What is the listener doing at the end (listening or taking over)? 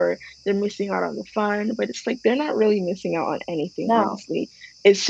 listening